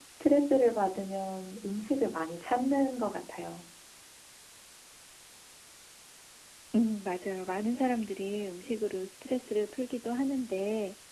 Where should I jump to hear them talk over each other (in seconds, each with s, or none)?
none